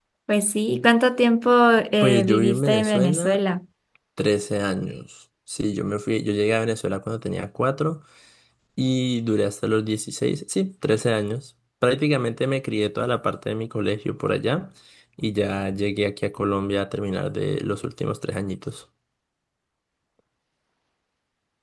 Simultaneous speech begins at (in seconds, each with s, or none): 2.0 s